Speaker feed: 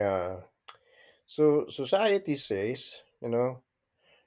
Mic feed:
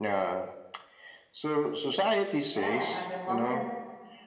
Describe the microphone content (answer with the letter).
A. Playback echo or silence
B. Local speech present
B